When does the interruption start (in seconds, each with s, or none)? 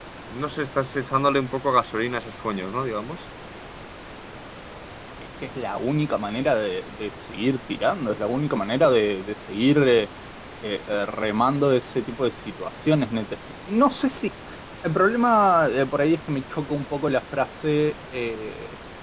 none